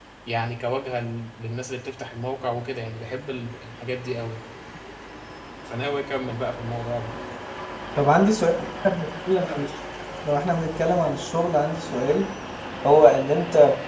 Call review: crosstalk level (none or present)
none